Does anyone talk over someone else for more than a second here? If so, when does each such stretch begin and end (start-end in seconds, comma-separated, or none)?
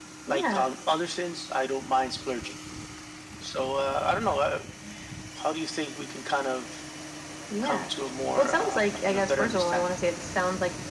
8.4-9.9